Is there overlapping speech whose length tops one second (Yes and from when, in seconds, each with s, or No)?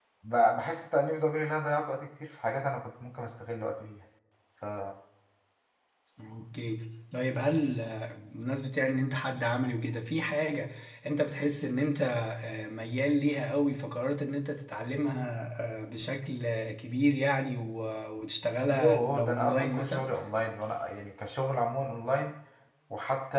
Yes, from 18.7 s